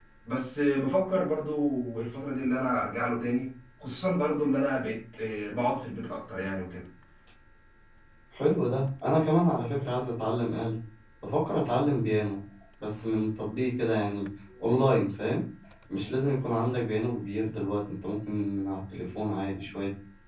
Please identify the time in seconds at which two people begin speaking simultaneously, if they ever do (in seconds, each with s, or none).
none